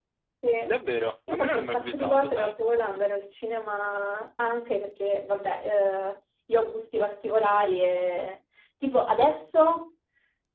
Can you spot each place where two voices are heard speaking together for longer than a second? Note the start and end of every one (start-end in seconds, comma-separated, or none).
1.3-2.5